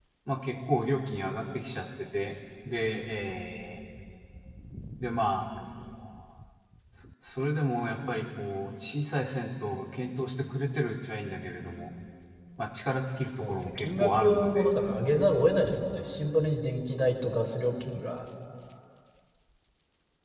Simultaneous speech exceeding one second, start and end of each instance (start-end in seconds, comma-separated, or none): 13.4-14.7